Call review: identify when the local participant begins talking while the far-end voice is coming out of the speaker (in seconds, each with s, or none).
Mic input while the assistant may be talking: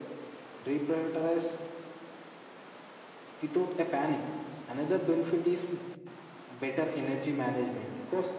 none